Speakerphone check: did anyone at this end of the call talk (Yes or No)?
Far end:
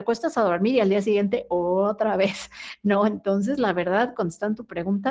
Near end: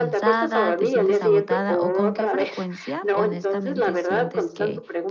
Yes